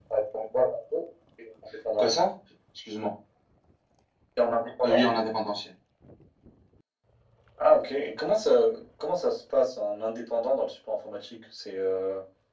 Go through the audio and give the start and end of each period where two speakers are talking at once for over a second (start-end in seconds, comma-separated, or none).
none